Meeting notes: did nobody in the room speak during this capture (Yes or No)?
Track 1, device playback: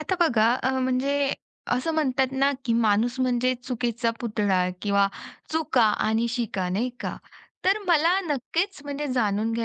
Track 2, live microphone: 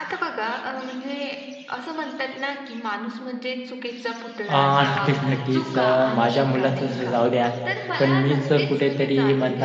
No